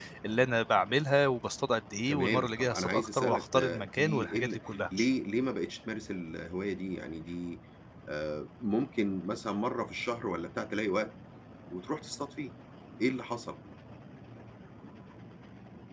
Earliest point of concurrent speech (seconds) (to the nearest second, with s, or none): 2 s